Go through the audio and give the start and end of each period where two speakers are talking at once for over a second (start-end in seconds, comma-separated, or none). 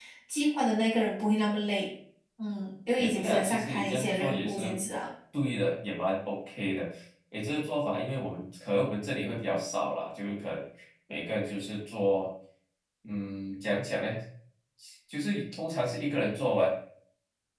3.0-4.8